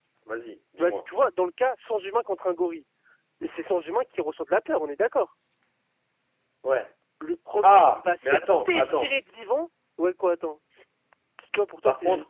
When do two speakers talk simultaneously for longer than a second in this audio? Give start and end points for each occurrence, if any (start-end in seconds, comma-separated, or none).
7.6-9.1